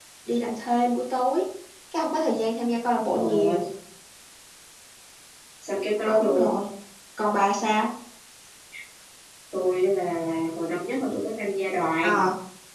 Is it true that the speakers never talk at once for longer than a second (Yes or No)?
Yes